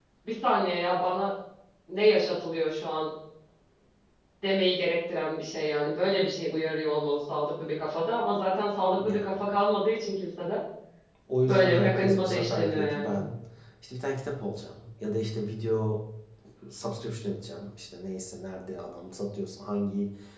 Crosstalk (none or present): present